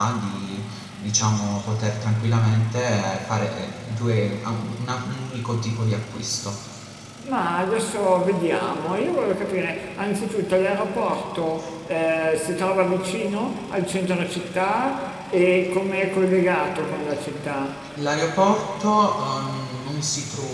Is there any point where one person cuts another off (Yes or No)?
No